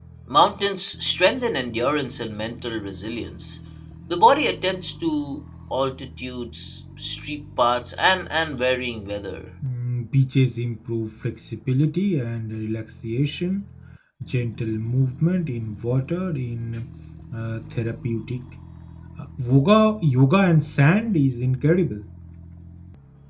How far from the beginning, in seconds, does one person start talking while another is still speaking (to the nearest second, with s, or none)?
none